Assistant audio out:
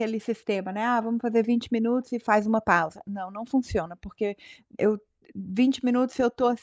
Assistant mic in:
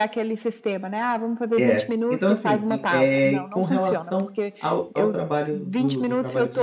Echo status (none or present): present